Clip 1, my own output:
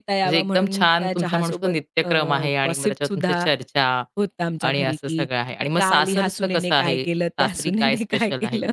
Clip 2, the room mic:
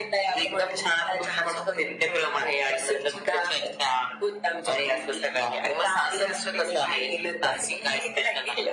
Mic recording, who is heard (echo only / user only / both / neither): echo only